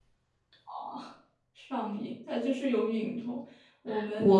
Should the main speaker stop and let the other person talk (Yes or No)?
Yes